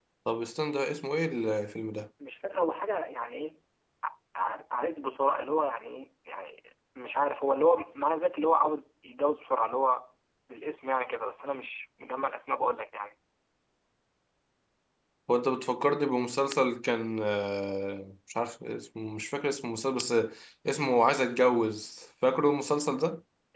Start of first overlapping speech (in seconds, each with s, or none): none